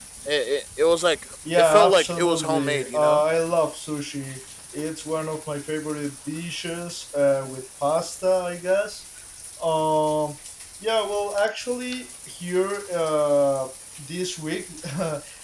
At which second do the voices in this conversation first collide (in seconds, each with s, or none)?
1.4 s